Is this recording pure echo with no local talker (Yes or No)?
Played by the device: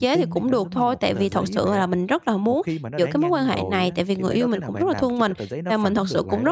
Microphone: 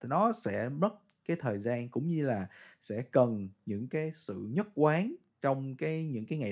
No